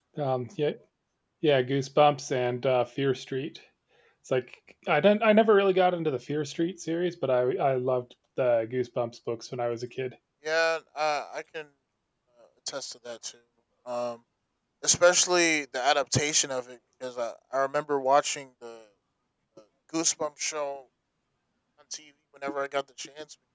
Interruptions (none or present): none